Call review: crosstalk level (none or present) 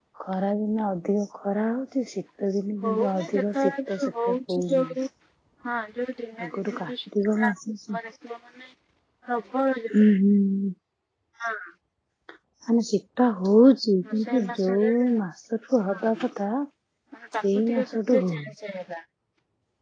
present